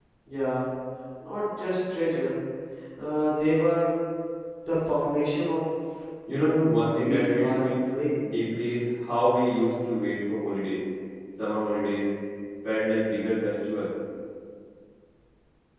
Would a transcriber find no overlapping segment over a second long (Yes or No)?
No